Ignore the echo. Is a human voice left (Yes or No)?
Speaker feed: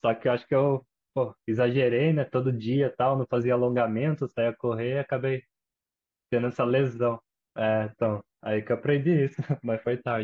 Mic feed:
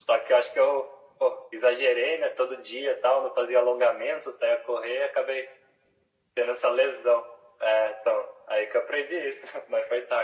No